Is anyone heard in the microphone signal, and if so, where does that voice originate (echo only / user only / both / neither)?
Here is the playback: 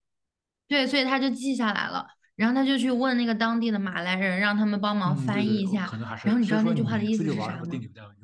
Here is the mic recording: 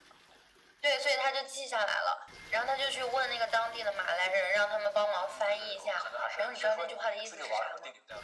echo only